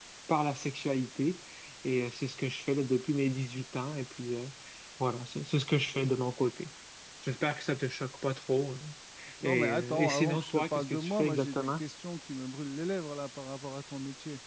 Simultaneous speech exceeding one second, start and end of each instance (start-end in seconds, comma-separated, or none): 9.4-11.8